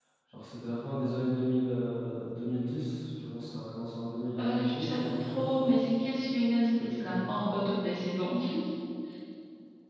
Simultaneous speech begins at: 4 s

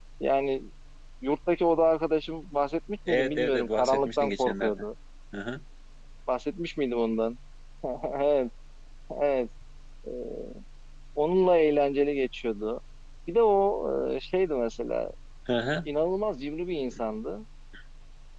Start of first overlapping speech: 3 s

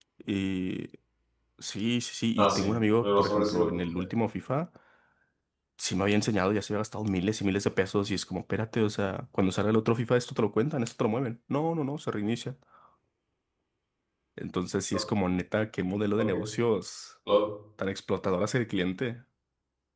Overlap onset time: 2 s

